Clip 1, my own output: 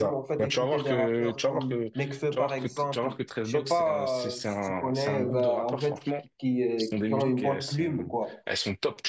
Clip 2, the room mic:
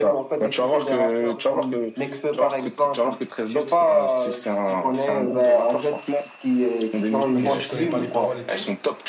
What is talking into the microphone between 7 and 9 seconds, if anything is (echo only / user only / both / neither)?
both